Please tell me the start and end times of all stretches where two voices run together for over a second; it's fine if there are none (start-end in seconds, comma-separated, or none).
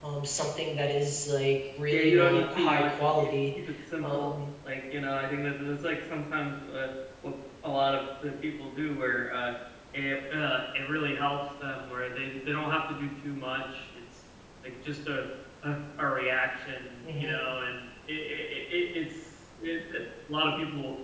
1.9-3.3